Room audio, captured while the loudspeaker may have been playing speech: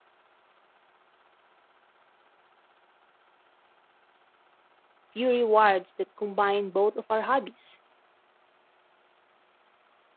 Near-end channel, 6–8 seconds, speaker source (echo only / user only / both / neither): user only